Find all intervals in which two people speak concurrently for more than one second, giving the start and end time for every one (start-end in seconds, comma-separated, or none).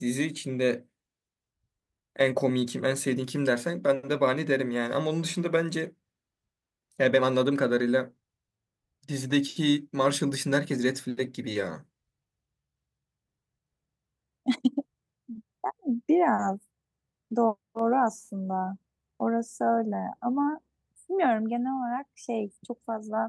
none